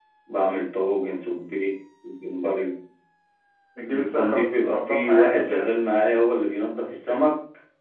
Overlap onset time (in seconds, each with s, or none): 3.9 s